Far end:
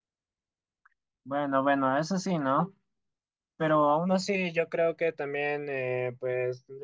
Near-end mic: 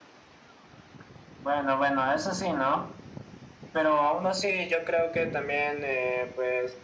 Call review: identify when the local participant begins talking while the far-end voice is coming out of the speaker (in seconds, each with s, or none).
none